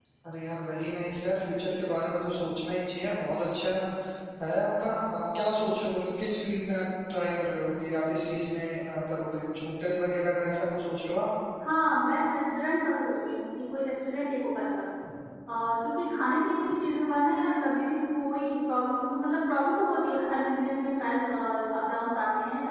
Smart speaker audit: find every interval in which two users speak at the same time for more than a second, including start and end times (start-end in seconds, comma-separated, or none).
none